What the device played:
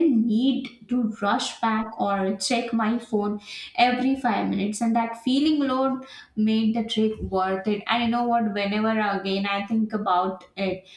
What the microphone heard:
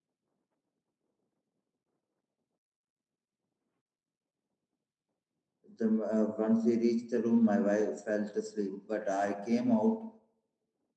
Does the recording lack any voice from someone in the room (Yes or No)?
No